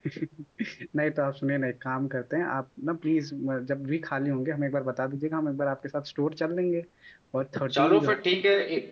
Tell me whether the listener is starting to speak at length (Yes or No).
Yes